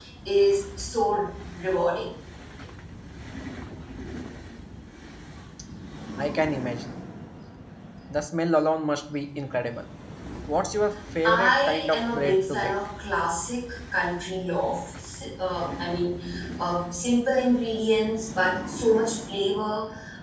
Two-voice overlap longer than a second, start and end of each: 11.2-12.8

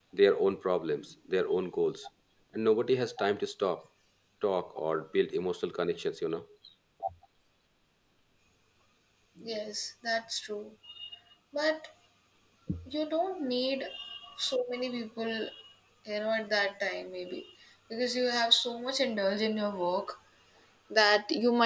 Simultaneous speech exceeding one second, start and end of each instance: none

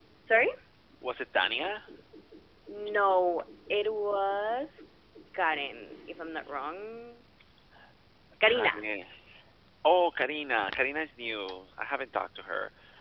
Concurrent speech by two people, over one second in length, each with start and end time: none

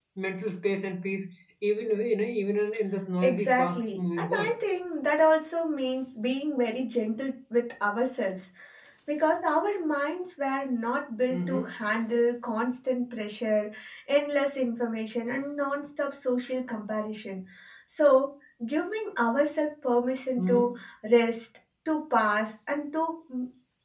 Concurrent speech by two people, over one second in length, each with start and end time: 3.2-4.6

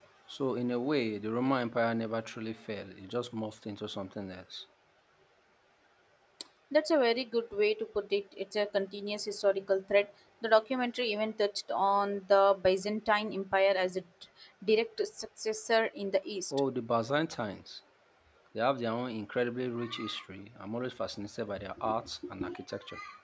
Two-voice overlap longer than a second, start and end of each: none

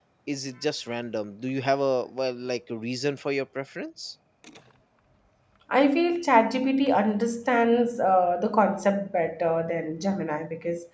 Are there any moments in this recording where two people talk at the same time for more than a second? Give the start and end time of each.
none

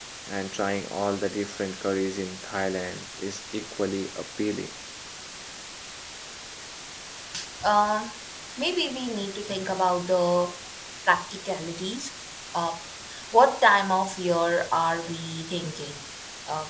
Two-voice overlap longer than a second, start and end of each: none

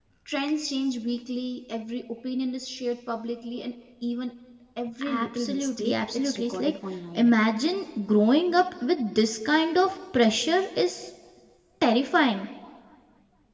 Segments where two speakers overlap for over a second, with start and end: 5.1-6.7

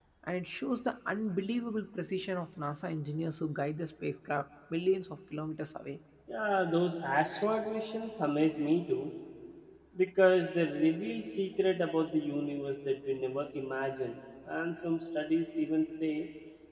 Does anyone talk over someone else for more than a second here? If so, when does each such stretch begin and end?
none

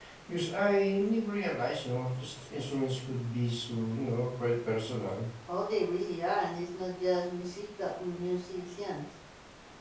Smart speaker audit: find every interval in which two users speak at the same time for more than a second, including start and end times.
none

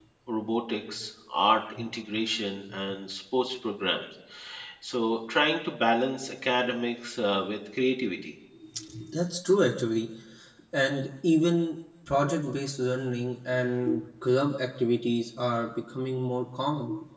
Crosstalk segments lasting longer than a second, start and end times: none

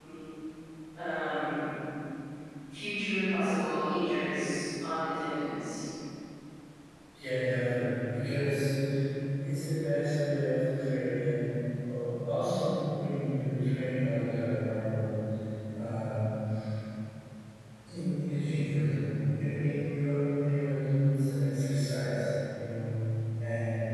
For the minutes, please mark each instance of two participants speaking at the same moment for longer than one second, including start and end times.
none

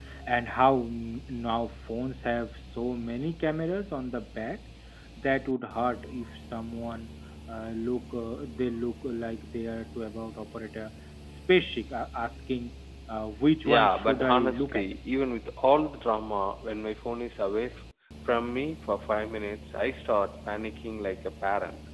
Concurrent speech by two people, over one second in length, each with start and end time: 13.6-14.9

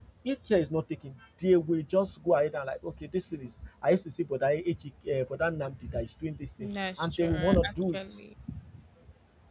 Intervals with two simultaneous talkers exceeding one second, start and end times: 6.6-8.2

